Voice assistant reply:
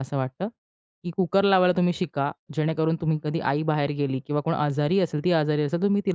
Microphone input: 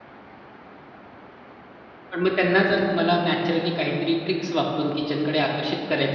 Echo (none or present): none